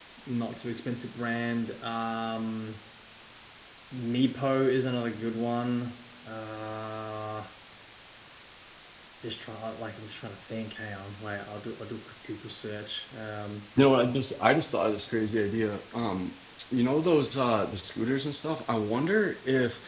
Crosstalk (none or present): none